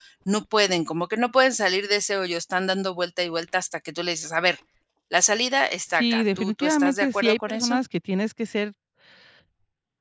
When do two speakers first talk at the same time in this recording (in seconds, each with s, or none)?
5.9 s